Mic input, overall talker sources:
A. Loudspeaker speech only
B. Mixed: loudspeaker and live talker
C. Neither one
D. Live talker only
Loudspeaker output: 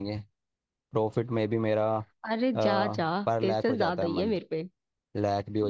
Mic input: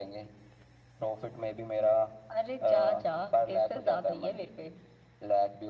A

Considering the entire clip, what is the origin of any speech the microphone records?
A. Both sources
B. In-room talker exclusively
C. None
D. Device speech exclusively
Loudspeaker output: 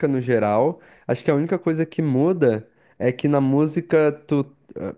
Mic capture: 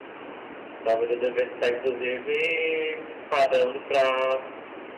B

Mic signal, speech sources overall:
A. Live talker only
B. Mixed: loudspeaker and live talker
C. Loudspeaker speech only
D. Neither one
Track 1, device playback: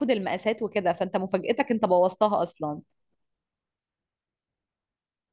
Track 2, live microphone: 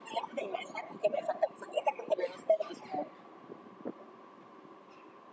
C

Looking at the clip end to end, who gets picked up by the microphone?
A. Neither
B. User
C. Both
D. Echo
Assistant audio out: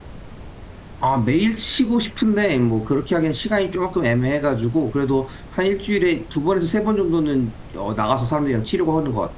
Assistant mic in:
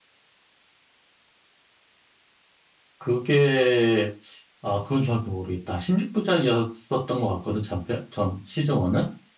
B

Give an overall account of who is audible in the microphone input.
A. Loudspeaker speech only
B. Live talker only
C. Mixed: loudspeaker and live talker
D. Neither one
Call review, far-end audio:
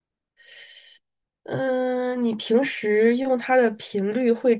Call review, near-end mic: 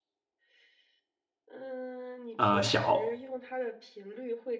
C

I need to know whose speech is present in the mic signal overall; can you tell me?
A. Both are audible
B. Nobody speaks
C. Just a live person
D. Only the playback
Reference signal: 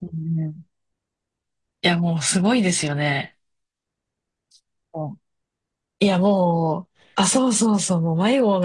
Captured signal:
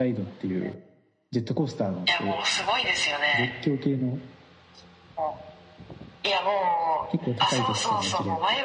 A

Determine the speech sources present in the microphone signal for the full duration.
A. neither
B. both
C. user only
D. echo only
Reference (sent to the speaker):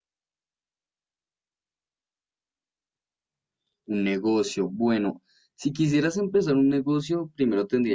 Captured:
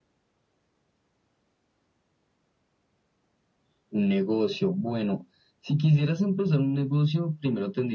D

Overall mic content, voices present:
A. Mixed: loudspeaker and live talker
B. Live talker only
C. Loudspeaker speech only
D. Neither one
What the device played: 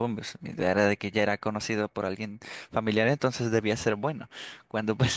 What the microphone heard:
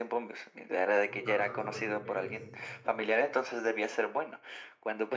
A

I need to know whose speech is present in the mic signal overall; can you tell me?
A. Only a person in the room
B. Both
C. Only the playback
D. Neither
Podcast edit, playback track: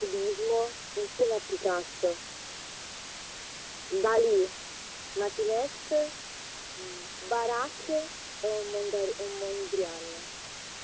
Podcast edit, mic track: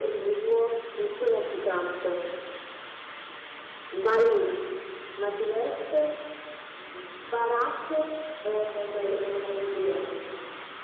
C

